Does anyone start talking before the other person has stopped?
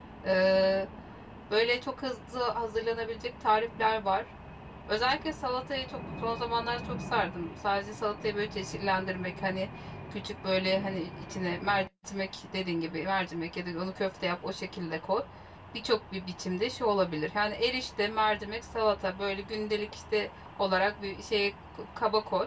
No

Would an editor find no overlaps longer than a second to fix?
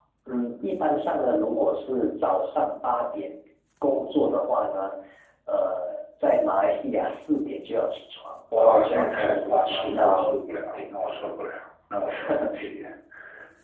No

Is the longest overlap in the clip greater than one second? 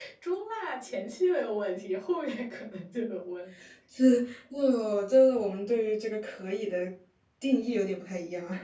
No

